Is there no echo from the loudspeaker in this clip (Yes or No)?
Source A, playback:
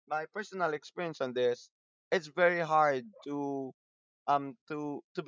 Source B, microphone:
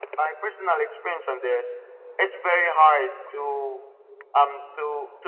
No